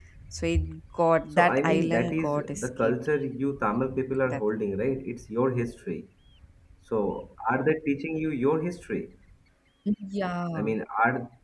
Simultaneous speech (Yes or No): Yes